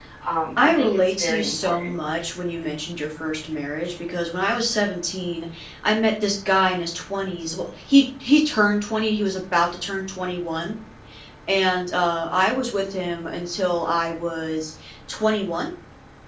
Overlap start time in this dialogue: 0.6 s

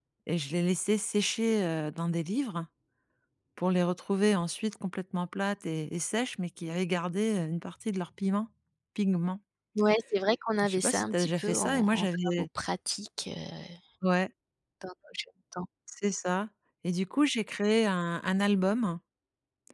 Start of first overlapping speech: 10.6 s

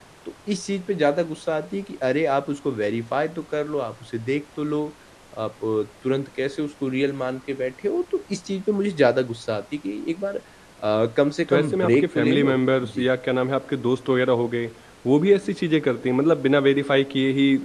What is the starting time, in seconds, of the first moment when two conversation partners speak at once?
11.5 s

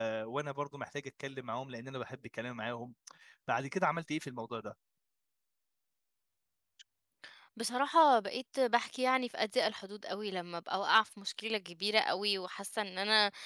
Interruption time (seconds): none

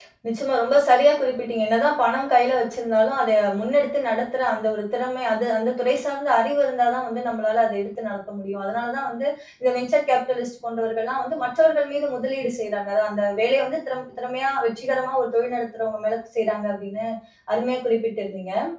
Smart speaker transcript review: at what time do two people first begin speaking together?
none

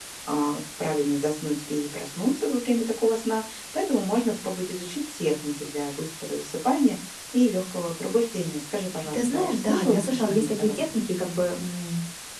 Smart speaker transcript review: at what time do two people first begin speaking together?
9.1 s

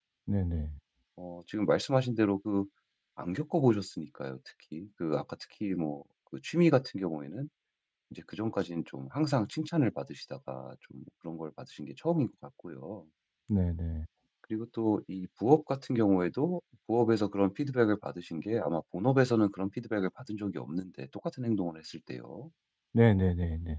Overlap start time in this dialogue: none

